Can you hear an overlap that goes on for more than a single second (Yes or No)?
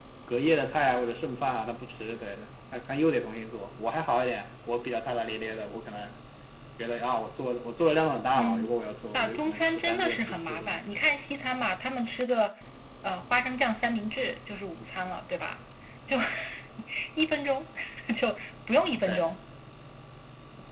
Yes